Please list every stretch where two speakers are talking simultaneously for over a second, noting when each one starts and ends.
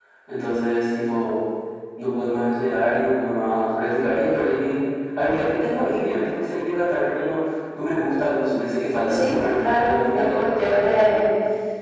9.1-11.2

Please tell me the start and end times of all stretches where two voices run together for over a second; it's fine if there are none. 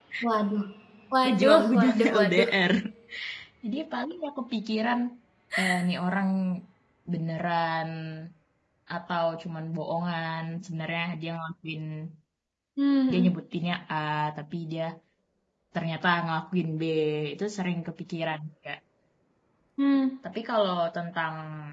1.2-2.5

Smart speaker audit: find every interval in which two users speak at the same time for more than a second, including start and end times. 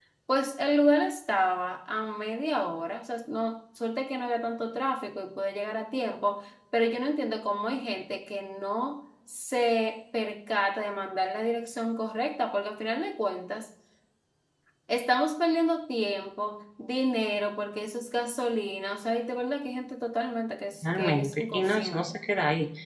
20.8-22.1

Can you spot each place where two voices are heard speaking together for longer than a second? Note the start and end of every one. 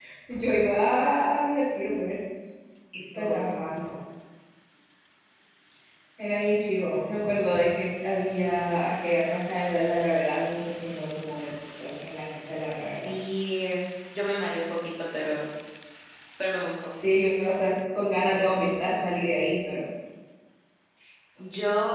none

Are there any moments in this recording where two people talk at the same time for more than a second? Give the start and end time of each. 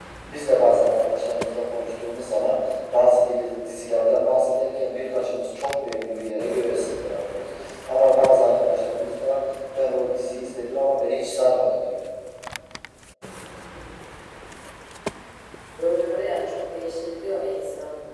none

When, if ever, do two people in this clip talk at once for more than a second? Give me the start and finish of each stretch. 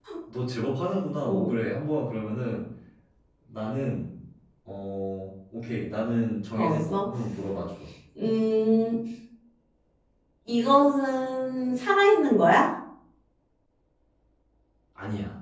none

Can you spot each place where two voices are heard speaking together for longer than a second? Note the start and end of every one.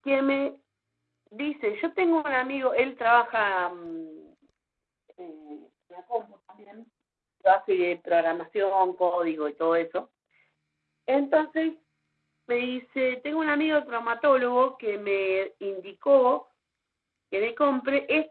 none

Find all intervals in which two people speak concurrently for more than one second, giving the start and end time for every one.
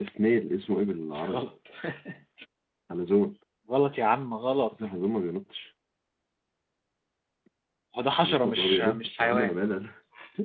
8.2-9.6

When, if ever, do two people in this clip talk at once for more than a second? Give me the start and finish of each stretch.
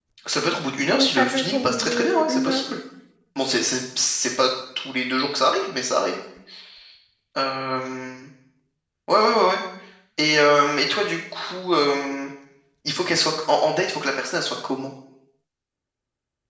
0.9-2.6

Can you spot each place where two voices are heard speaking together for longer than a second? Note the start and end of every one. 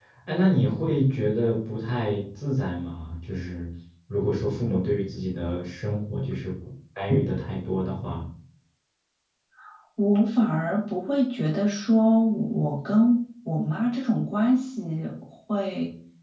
none

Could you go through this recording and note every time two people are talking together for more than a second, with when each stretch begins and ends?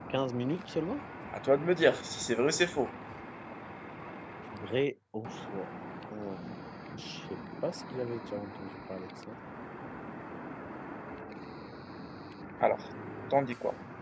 none

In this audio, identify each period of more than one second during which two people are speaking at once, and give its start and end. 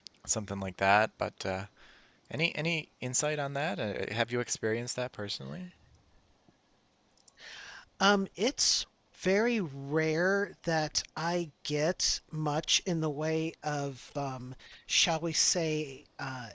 none

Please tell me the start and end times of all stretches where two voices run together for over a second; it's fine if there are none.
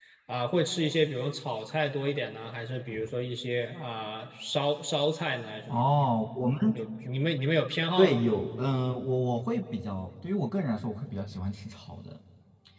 none

